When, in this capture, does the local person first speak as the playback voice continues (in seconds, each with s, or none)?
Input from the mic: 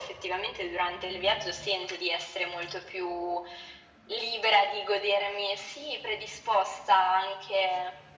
none